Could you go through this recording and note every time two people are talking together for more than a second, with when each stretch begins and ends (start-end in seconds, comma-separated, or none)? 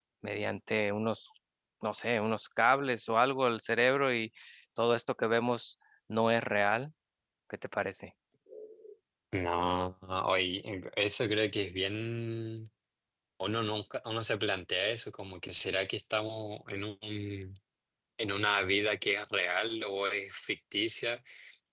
none